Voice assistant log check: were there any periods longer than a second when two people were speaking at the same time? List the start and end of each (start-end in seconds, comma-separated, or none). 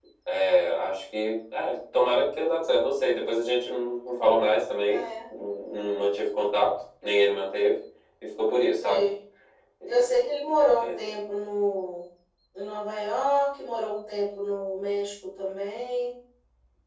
none